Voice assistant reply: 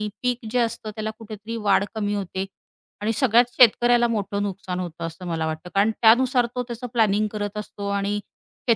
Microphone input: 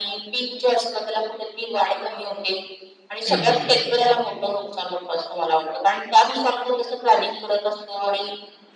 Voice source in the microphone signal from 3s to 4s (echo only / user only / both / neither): both